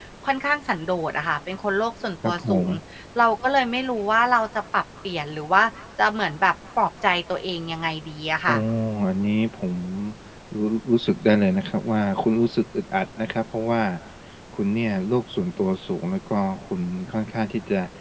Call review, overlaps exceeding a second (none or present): none